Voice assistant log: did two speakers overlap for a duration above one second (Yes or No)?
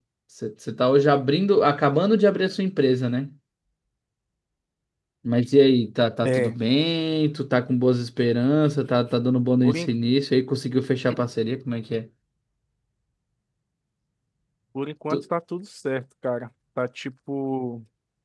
No